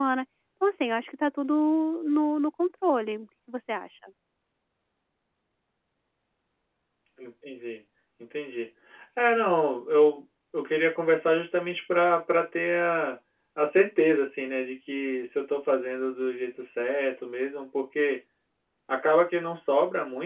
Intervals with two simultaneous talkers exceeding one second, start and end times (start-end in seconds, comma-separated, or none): none